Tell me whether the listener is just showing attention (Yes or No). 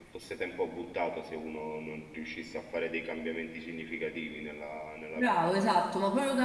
No